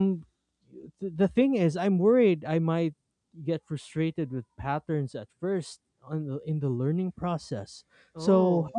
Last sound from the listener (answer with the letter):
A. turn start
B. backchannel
B